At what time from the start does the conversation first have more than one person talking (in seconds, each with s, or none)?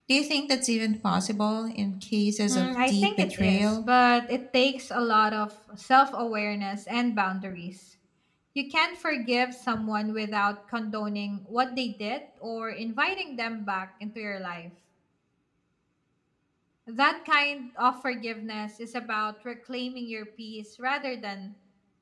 2.5 s